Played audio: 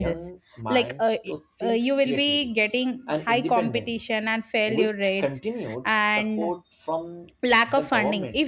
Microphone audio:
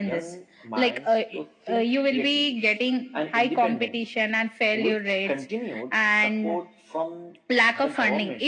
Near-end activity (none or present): none